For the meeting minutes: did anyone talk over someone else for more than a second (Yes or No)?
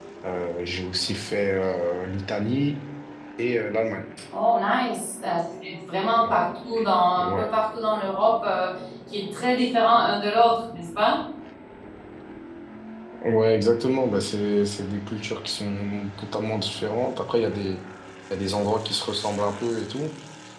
No